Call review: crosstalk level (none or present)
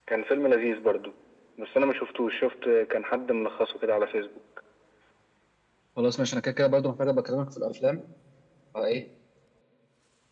none